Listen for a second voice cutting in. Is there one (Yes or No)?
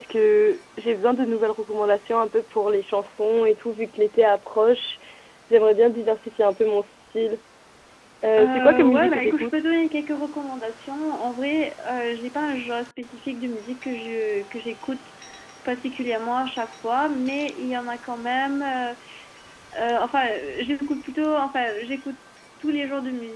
Yes